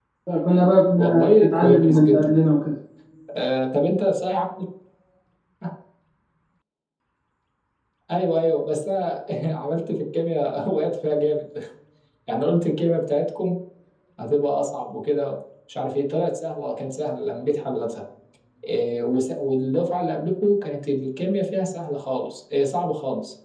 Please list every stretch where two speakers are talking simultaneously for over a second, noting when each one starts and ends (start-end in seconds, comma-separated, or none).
1.0-2.4